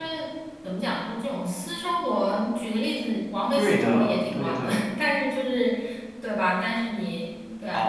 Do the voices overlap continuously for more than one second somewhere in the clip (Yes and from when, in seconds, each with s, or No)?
Yes, from 3.5 s